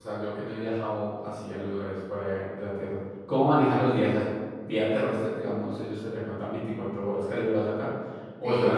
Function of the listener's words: taking over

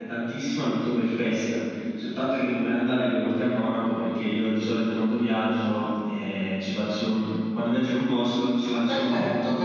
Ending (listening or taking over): taking over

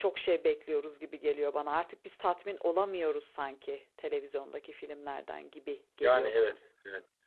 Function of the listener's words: taking over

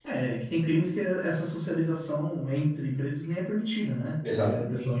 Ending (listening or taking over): listening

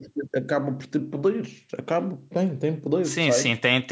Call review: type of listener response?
taking over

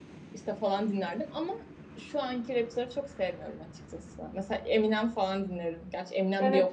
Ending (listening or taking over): taking over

